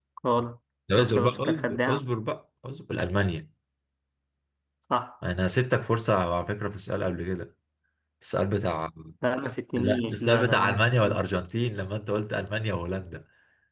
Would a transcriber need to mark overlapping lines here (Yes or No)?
Yes